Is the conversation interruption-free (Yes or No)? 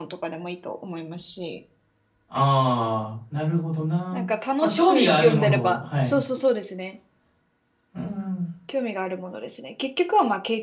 No